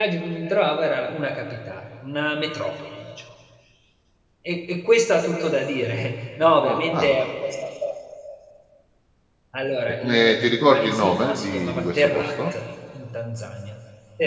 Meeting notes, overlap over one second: present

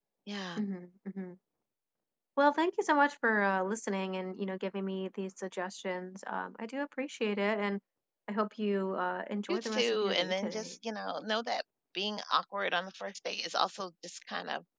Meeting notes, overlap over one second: present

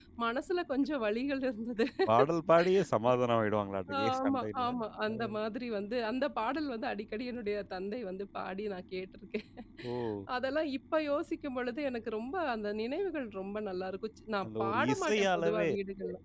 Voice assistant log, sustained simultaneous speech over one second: present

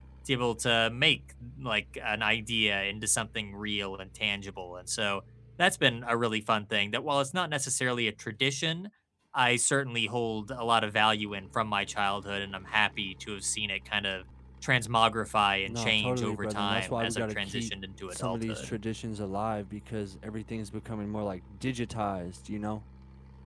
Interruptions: present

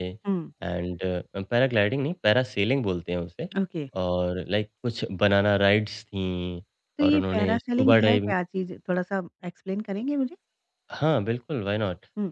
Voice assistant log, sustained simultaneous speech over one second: present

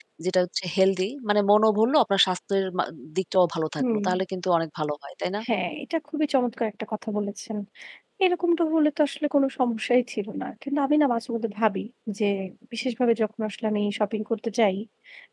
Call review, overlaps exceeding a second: none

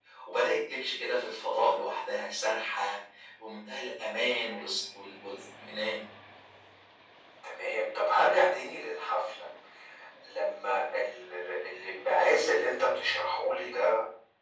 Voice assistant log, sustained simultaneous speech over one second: none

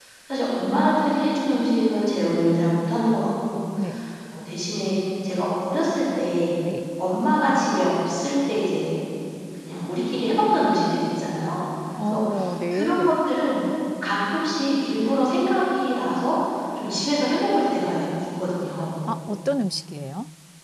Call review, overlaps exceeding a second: none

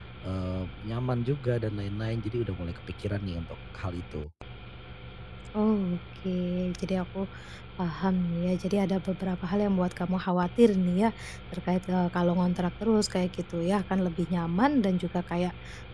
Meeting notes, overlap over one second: none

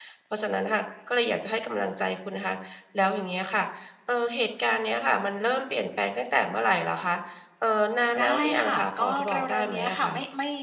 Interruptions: present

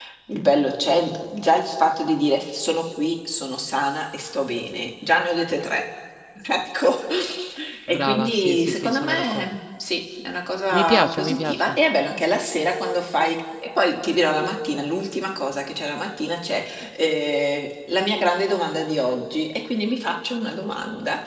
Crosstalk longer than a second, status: present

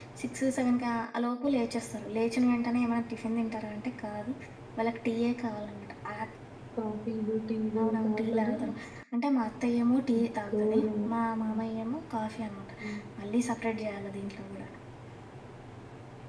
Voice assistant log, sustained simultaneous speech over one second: present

